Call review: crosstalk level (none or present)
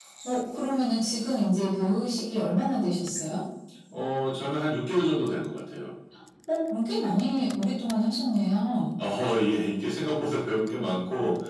none